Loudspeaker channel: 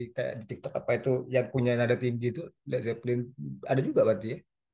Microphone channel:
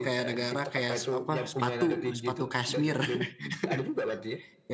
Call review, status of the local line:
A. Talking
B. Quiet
A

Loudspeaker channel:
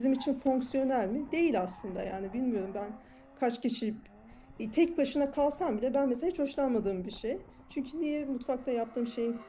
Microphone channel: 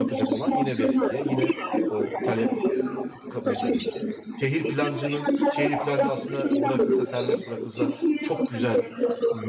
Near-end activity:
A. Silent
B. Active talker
B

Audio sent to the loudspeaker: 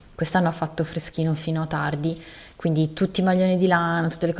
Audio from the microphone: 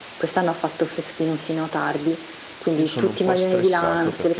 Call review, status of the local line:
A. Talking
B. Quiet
A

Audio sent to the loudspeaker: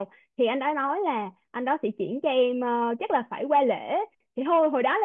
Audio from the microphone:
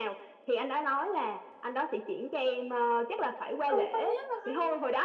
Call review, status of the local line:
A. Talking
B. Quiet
A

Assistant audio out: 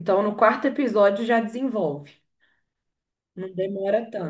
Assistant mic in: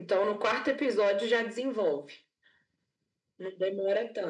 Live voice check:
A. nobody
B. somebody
A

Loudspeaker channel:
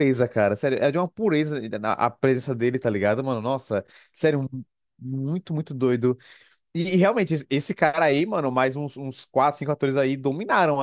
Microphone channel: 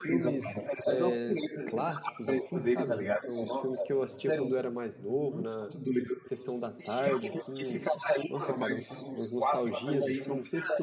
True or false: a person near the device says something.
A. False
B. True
B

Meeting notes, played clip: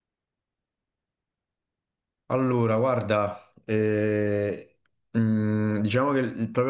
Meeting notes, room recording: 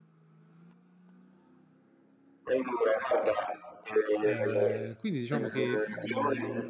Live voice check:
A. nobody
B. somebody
B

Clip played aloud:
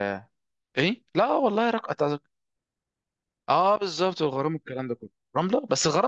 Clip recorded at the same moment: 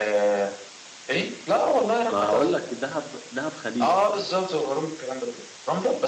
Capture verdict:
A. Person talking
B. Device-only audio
A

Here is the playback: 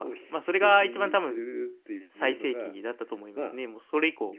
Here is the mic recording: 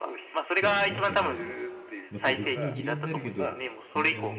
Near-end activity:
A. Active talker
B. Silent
A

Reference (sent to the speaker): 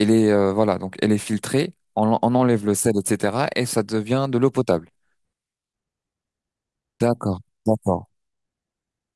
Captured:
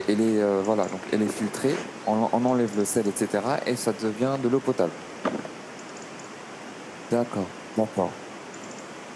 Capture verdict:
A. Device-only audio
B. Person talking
A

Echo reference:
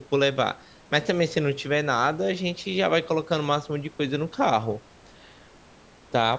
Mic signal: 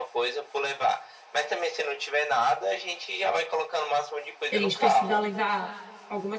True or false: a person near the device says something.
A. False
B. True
B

